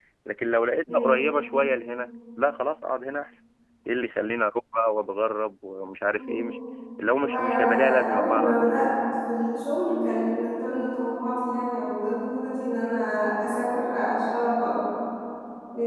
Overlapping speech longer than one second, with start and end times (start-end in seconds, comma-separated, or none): 7.2-8.7